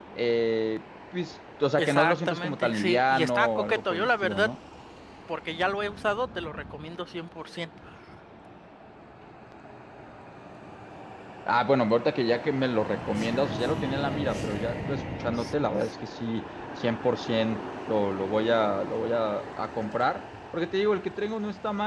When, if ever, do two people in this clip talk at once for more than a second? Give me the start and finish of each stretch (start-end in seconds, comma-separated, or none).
1.8-4.5